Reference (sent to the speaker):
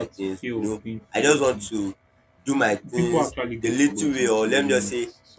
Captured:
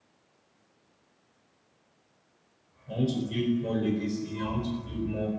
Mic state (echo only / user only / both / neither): user only